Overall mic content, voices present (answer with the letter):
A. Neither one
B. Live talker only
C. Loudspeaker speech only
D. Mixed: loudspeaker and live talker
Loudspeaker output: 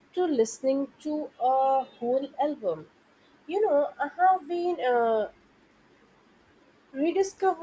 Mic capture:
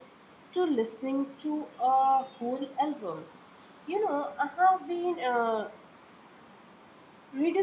C